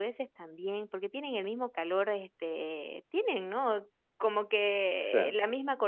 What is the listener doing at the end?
listening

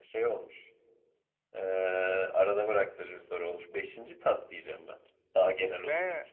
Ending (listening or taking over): taking over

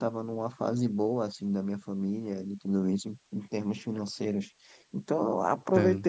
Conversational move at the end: listening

